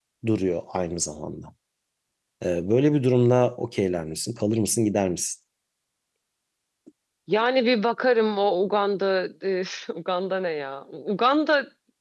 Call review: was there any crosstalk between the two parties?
No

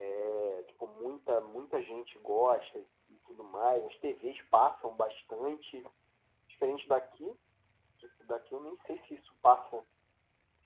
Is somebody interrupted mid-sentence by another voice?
No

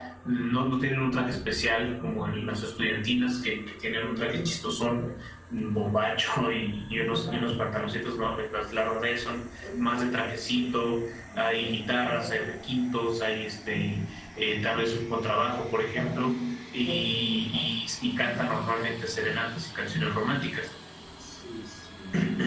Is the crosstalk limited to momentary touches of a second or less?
Yes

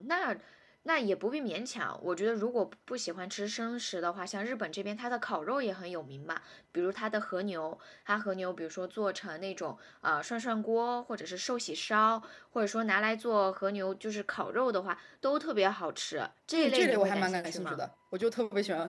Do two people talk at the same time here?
Yes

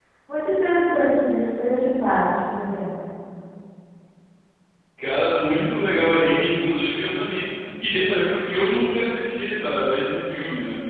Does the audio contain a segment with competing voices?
No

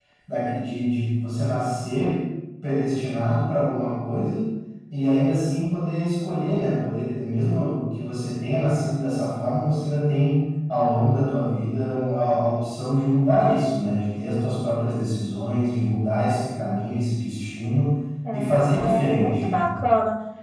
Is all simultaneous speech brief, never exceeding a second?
No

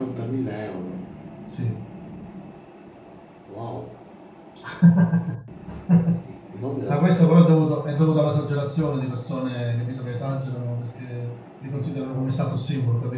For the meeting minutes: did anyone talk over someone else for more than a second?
No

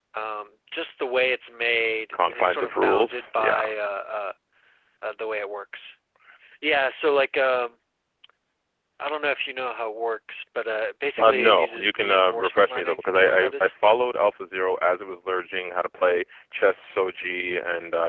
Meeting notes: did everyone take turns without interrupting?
No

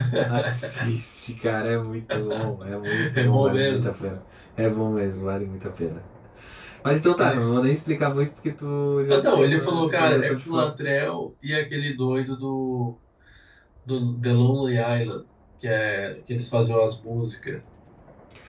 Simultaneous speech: Yes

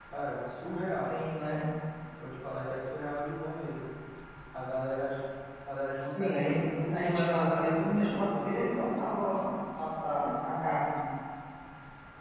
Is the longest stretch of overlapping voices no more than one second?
No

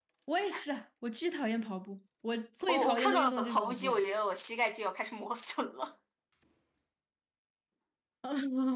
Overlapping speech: Yes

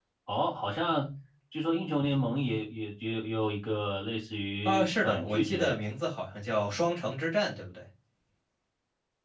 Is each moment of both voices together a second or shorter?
No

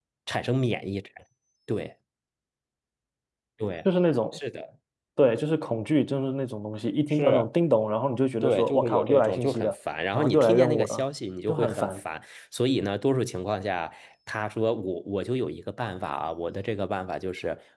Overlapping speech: Yes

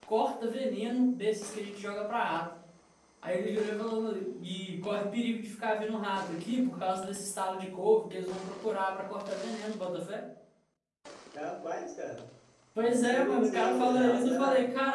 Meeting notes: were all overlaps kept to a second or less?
No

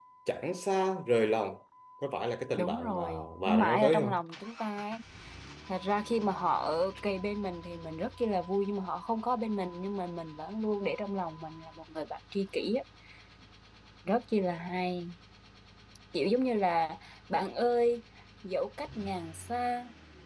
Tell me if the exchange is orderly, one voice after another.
No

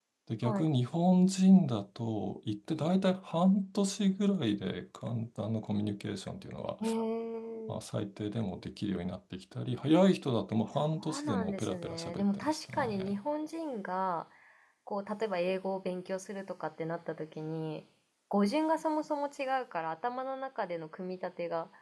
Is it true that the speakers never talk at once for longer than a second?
No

